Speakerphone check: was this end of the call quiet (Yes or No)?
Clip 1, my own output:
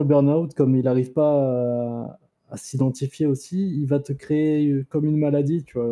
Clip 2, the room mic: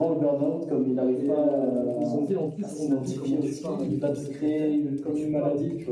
No